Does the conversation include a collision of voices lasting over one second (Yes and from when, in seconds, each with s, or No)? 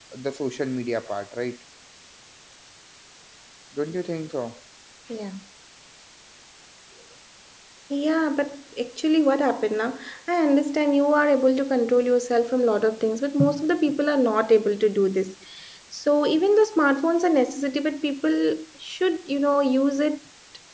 No